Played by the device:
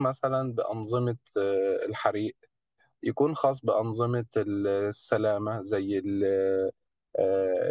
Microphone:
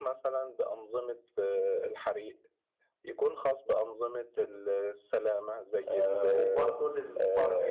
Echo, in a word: present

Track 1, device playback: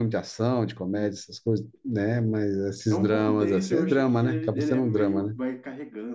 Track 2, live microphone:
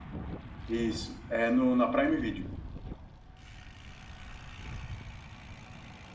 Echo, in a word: none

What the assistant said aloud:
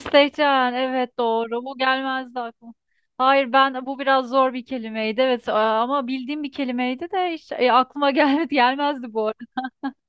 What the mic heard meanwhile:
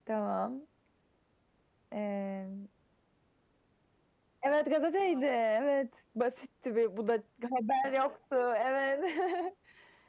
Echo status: none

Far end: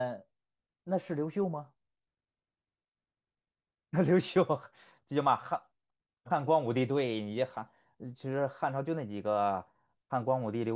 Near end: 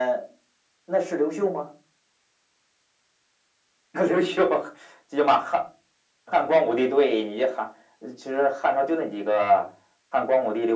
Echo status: present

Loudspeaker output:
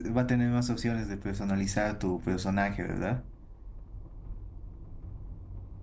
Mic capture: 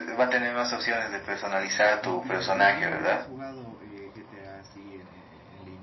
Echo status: present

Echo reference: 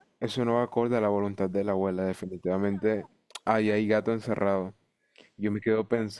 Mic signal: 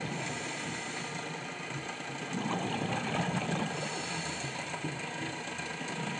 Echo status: none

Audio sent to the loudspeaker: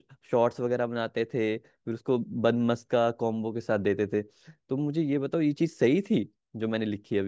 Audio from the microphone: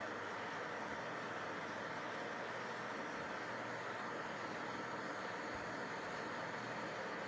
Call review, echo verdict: none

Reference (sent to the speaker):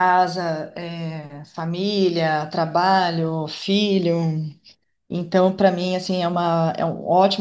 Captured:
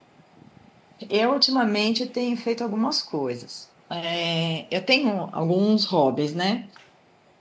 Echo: none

